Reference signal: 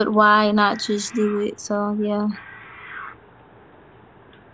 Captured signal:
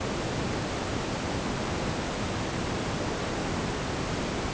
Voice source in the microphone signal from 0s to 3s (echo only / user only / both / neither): neither